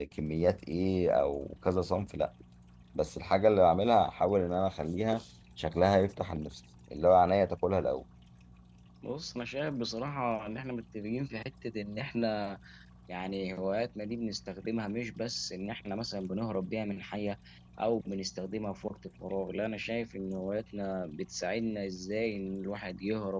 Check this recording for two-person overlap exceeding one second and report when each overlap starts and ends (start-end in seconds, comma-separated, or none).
none